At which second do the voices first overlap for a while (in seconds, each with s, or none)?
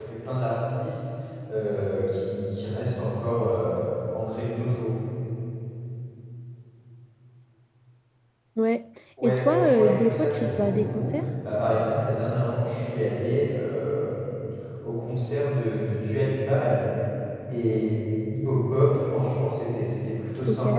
9.2 s